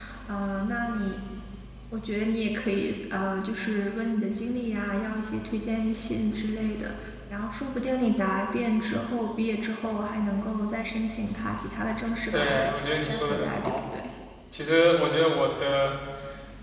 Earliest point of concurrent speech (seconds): 12 s

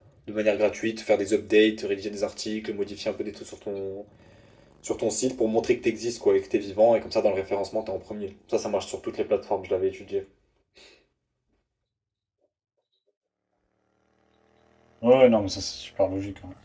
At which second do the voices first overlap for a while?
none

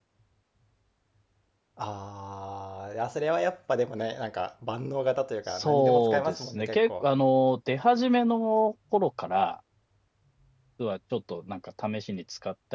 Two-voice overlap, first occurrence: 5 s

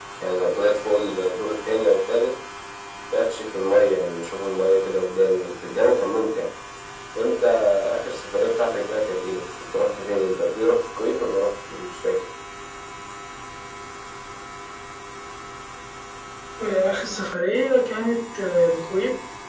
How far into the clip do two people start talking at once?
none

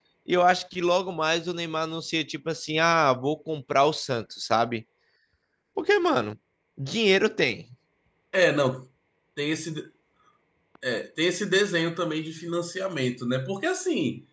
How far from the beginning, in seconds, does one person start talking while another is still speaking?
none

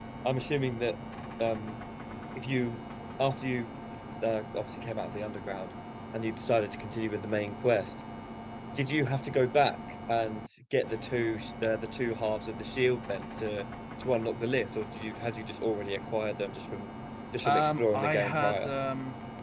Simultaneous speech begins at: 17 s

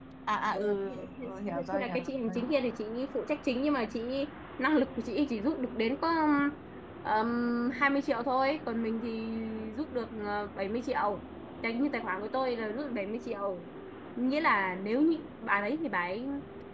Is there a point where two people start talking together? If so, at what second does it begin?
1 s

